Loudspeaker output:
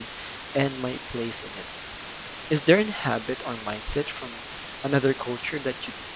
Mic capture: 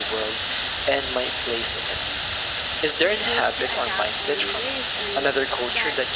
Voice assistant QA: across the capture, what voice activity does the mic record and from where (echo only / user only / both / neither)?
both